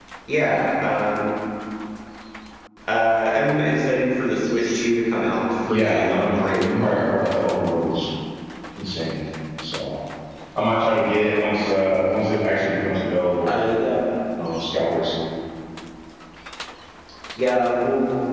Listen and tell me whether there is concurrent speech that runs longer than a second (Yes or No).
Yes